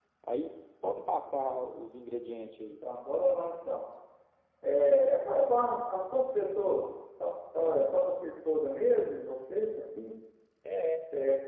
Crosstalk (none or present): none